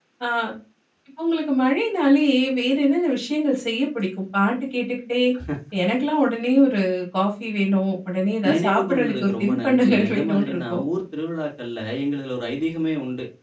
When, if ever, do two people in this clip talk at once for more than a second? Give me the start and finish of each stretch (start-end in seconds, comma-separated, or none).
8.5-10.8